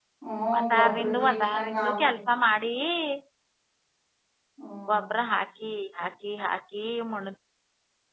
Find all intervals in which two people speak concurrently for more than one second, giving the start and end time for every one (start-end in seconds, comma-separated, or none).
0.6-2.0